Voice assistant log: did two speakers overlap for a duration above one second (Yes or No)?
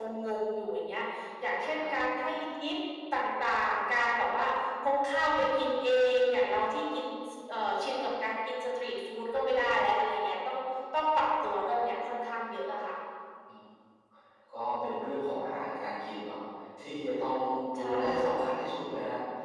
No